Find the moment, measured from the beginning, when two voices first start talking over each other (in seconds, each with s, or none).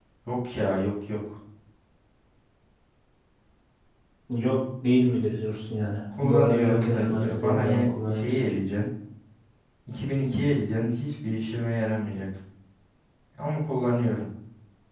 6.1 s